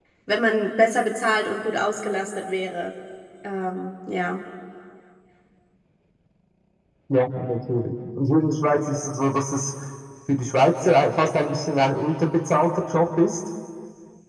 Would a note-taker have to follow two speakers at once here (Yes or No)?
No